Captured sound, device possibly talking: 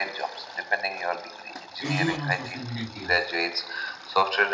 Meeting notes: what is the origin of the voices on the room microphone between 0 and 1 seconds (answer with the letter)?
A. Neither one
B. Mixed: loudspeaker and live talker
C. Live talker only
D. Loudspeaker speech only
D